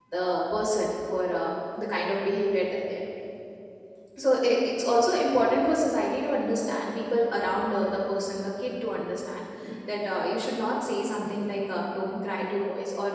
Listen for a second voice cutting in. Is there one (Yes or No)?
No